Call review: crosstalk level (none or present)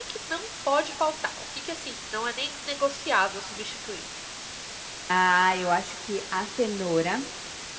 none